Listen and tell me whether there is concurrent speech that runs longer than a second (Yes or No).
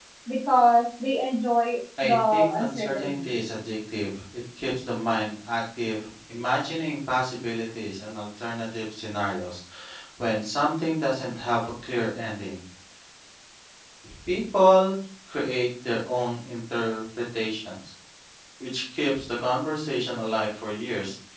Yes